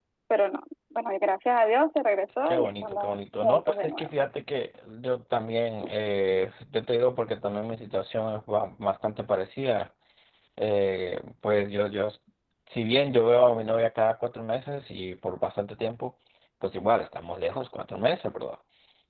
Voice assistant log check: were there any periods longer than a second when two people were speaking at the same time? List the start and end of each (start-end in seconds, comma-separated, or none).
2.5-4.1